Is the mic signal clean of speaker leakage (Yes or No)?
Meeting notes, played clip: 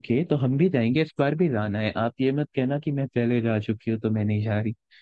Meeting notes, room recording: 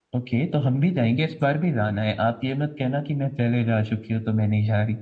No